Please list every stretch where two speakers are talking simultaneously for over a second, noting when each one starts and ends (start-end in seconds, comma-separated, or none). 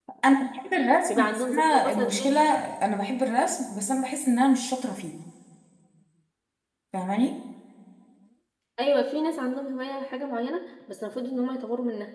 1.1-2.4